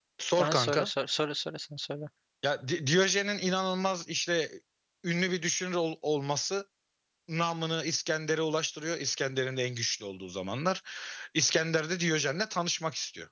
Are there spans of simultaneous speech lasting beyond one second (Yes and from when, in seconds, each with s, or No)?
No